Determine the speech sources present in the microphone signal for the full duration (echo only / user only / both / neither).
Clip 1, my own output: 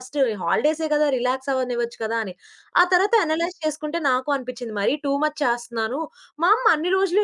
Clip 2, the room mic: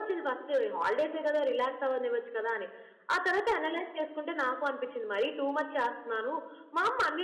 echo only